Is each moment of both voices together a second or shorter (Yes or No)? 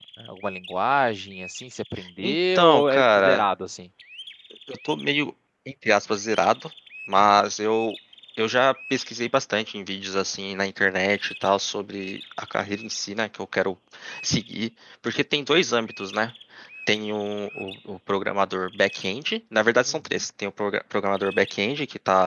No